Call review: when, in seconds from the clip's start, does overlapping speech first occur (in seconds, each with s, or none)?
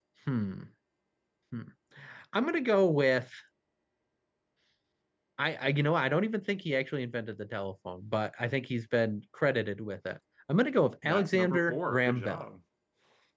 11.0 s